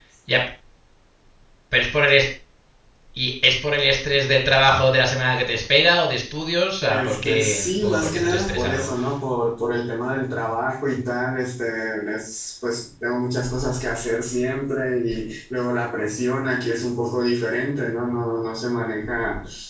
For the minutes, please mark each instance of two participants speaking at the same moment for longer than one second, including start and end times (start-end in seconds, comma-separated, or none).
6.9-8.9